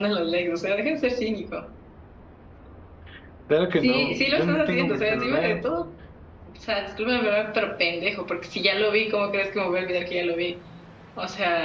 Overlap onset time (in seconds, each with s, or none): 3.8 s